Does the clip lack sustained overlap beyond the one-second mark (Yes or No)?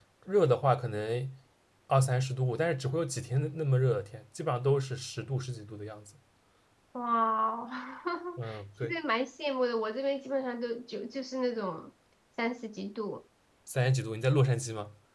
Yes